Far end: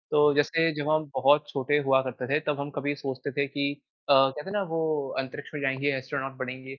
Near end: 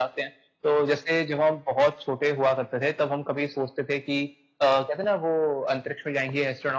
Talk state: echo only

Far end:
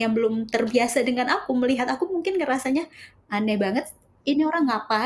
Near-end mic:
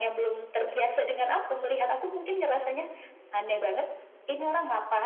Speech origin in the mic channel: echo only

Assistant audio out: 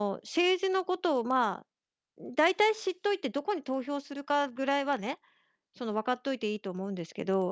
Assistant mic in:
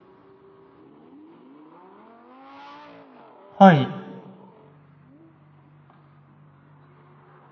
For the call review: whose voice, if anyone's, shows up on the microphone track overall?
user only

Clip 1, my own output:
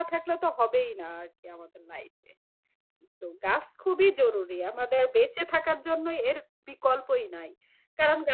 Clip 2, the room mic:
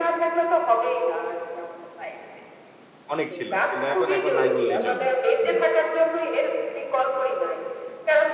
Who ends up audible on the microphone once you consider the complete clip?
both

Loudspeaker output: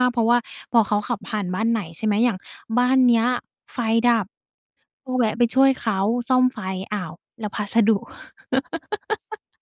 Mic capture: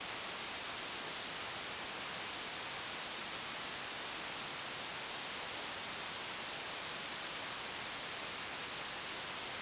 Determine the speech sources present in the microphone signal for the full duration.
neither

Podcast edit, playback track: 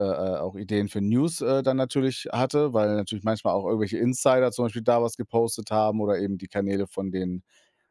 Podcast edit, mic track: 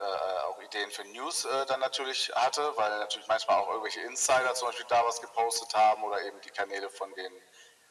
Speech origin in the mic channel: echo only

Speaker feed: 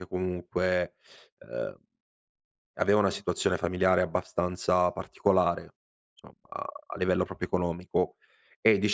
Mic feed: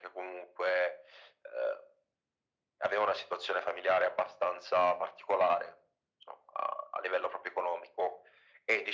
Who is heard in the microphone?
echo only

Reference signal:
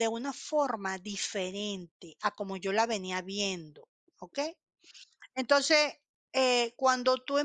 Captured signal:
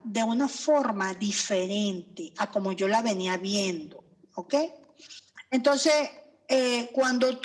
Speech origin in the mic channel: echo only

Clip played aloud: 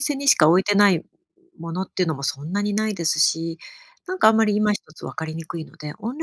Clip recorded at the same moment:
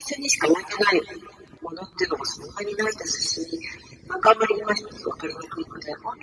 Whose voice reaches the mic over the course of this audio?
echo only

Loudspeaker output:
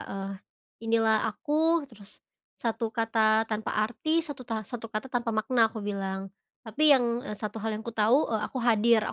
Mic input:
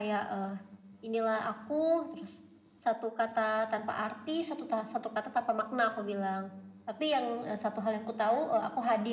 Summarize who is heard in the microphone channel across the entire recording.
echo only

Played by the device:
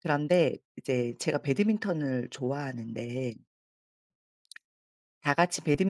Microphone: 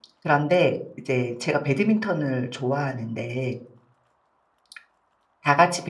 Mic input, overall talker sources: echo only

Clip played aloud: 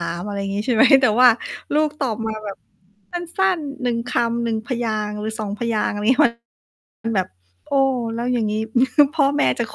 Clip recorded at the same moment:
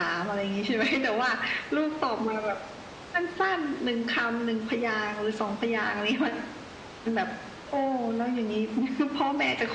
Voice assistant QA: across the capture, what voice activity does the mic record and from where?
echo only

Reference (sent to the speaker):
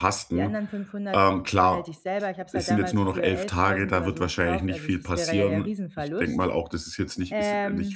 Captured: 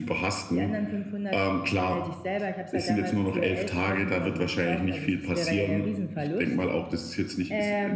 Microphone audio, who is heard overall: echo only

